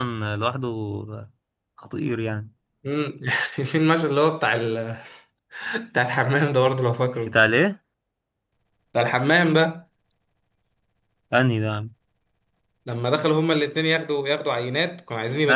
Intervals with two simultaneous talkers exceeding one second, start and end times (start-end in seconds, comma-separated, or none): none